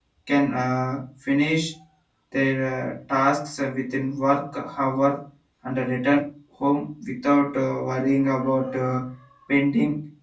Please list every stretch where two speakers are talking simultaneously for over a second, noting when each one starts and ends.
none

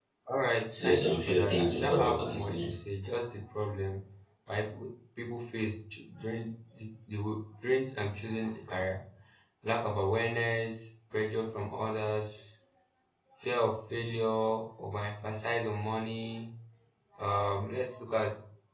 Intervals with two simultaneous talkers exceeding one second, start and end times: 0.8-2.7

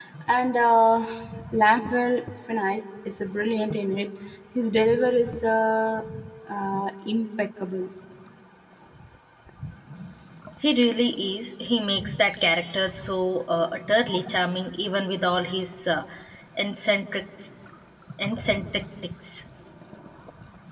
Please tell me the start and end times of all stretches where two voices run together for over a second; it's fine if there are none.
none

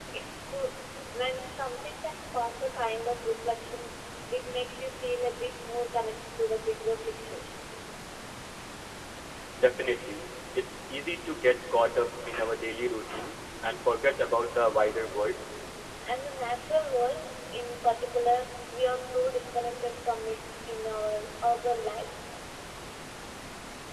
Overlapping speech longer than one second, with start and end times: none

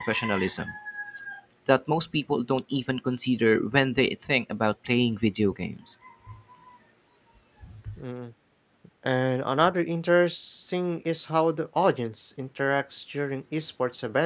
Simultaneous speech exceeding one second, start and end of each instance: none

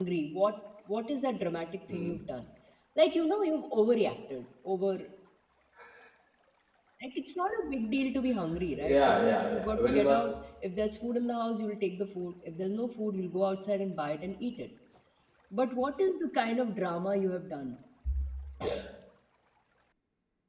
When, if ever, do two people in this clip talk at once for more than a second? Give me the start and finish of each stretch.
8.8-10.3

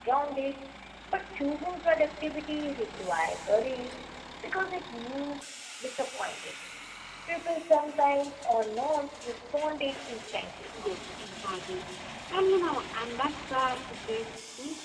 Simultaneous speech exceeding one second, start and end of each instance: none

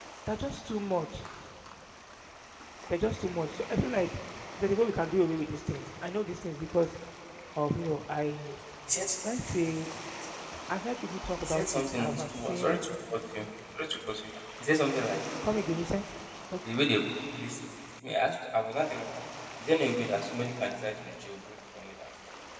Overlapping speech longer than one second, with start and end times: 11.4-12.7

